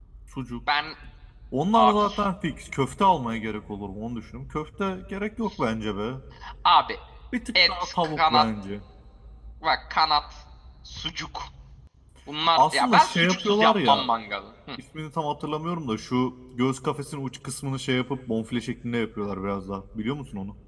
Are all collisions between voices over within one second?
No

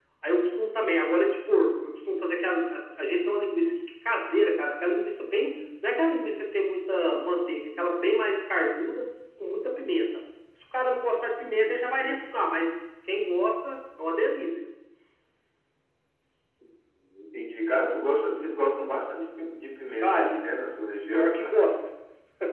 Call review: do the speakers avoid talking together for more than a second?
Yes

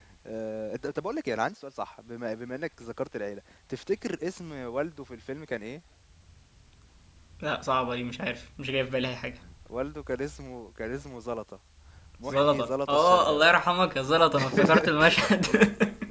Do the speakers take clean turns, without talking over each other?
No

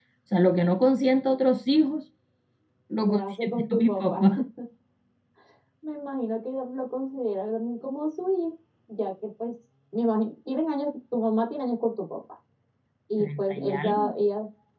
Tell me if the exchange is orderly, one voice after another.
No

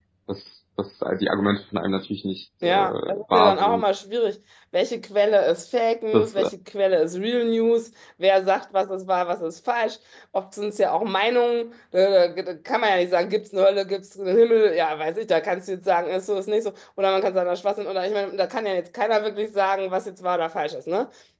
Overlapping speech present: Yes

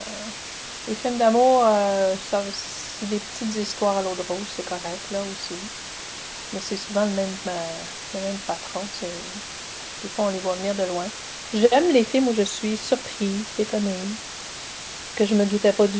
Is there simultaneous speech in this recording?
No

